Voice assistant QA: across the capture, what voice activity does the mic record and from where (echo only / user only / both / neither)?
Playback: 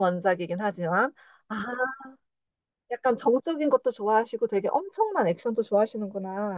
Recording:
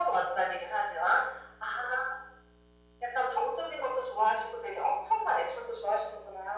echo only